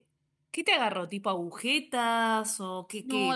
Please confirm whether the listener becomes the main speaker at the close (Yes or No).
Yes